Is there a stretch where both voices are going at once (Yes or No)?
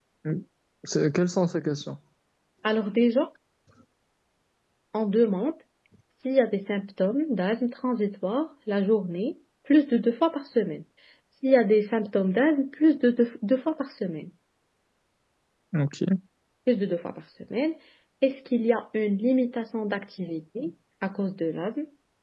No